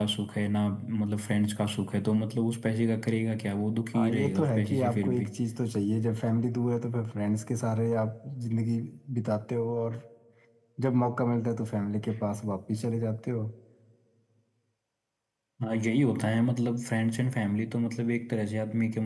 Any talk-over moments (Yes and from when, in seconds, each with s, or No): Yes, from 3.9 s